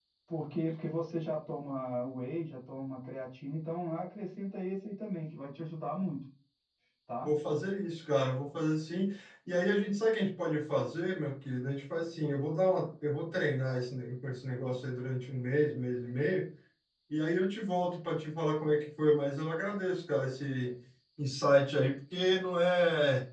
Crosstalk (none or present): none